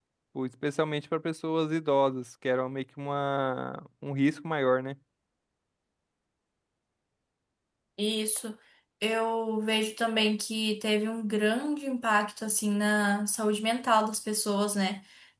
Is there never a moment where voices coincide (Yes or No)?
Yes